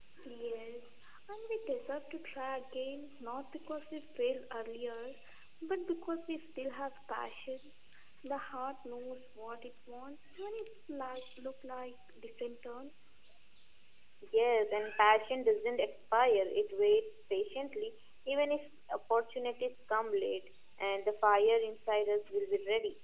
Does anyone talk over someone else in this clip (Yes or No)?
No